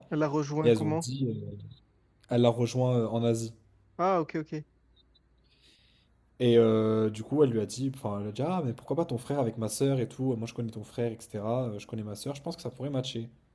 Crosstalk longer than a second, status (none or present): none